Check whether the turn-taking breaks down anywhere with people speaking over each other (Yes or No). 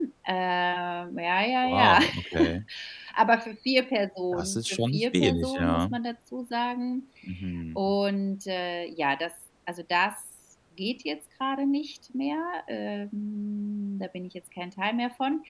Yes